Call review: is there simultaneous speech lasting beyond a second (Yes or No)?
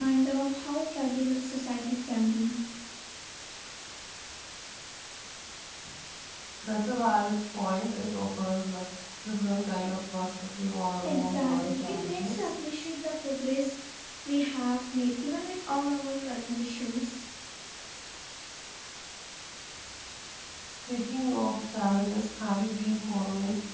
Yes